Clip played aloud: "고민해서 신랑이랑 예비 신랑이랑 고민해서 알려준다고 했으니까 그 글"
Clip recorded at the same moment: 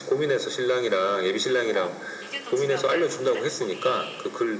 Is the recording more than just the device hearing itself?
Yes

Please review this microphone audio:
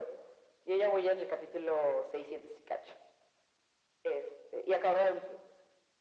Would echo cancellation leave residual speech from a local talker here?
No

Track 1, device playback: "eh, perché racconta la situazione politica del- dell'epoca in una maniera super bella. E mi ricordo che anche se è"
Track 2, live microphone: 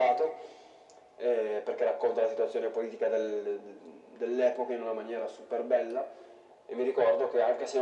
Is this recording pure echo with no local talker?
Yes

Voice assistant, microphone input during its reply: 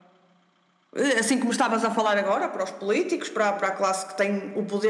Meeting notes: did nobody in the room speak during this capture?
Yes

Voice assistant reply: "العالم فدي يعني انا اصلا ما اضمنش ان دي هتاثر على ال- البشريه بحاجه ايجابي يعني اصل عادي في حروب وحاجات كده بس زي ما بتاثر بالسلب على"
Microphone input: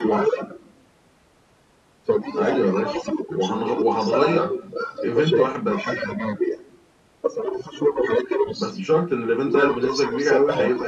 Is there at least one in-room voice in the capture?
Yes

